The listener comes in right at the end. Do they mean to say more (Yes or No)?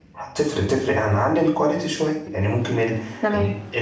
No